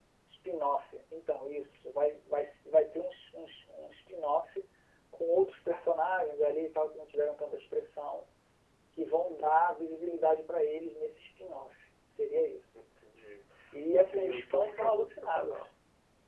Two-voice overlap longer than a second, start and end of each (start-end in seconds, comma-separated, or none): 14.0-15.6